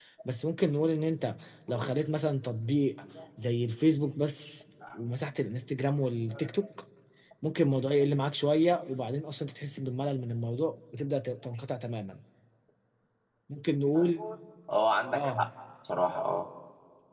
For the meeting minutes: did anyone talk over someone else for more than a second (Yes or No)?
No